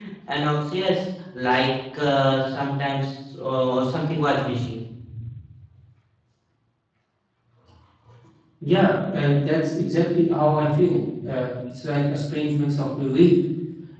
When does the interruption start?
none

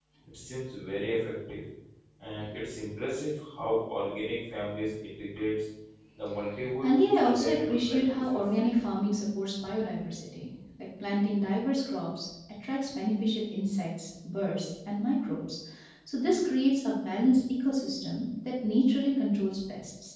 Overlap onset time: 6.8 s

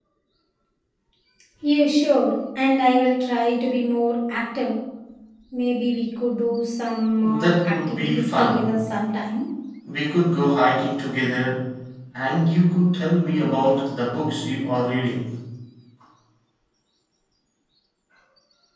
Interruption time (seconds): 7.2 s

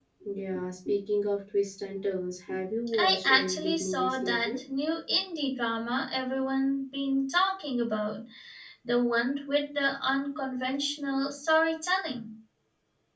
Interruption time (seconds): 2.9 s

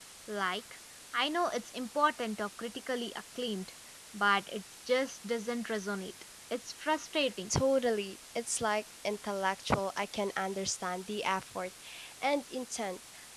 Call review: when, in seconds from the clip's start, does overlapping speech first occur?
none

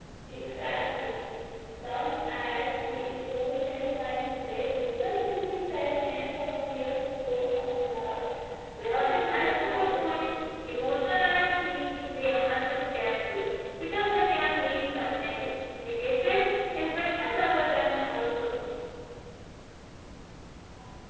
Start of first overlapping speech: 8.8 s

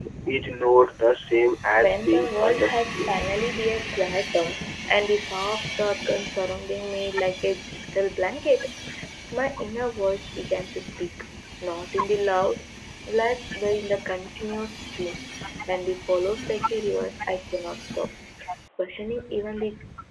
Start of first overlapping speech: 1.8 s

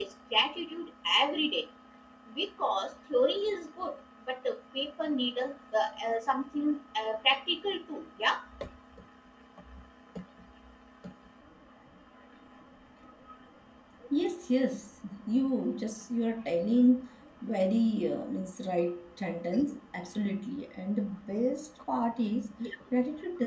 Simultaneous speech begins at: none

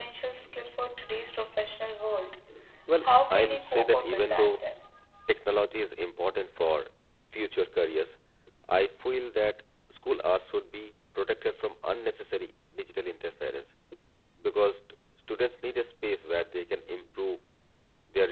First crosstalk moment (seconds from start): 3.0 s

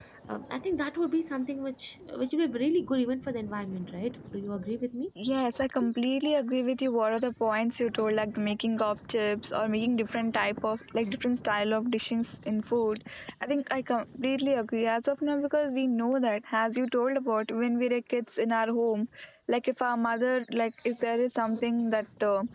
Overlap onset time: none

